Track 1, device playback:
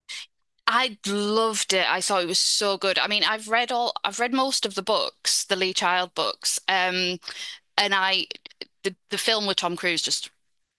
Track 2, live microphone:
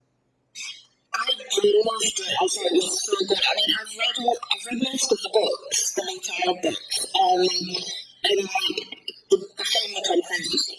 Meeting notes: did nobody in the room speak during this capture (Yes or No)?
Yes